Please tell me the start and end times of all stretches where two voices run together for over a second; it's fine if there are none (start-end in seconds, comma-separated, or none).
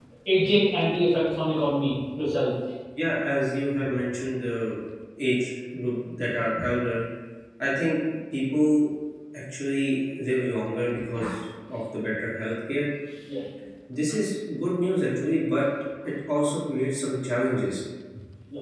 none